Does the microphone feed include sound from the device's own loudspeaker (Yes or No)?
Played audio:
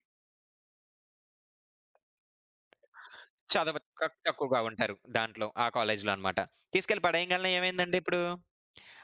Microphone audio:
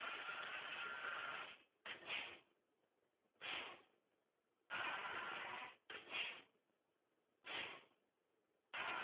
No